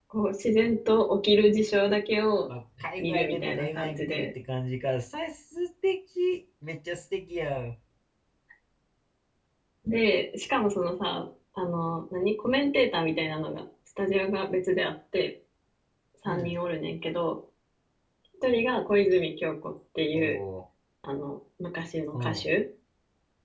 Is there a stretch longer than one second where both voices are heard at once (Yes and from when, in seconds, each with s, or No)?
Yes, from 3.0 s